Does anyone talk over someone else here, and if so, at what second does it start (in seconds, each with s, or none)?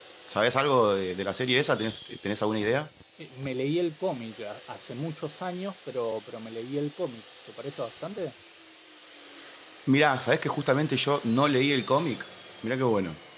none